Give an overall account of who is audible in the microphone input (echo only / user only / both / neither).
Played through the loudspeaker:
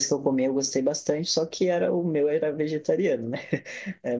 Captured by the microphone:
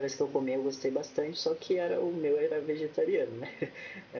echo only